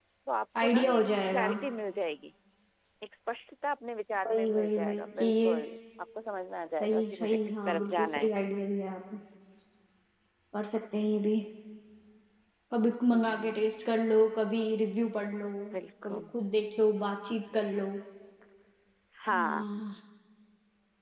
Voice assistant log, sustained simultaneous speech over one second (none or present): present